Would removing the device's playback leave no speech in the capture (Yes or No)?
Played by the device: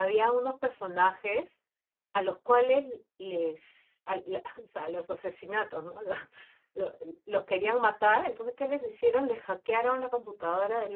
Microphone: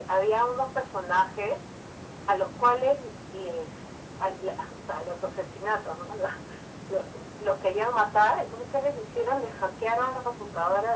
Yes